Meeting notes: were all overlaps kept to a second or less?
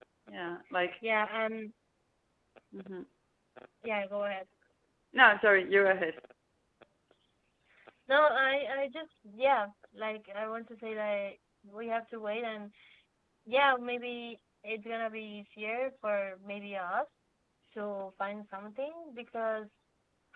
Yes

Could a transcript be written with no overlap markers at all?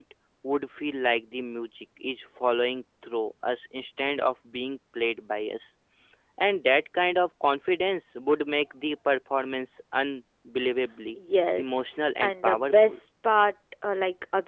No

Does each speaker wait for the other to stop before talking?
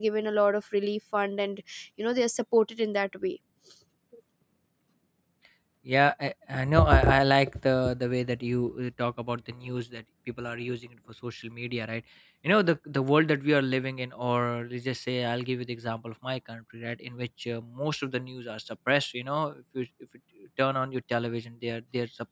Yes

